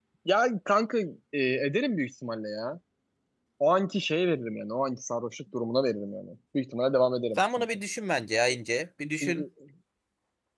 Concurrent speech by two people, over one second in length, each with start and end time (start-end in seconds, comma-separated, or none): none